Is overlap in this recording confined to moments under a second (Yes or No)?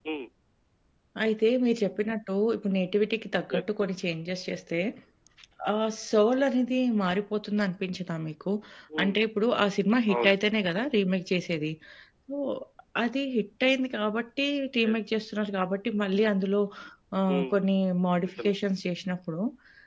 Yes